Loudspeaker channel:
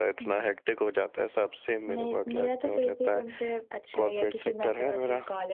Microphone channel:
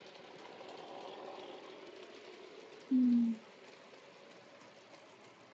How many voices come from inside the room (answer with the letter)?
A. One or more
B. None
A